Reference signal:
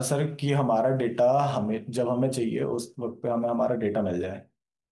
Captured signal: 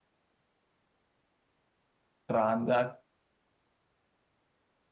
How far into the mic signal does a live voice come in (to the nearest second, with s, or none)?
2 s